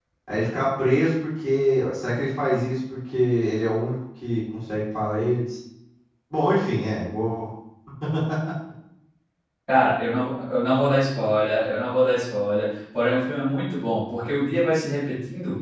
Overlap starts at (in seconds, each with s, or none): none